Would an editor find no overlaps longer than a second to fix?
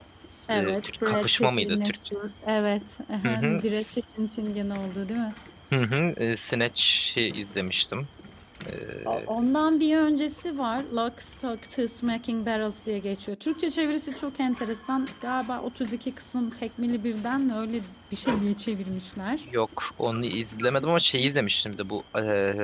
No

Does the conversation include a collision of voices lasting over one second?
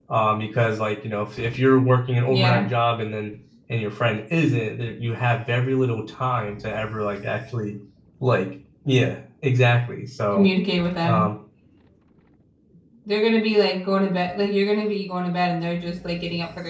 No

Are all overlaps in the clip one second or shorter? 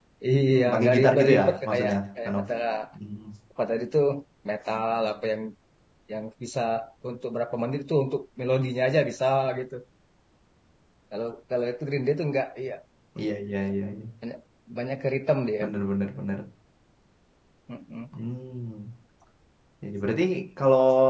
No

